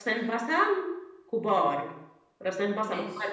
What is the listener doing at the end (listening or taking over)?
listening